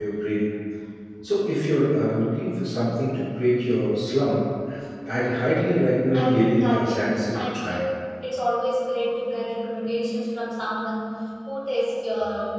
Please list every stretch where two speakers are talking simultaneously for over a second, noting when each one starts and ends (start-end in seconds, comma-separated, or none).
6.1-7.8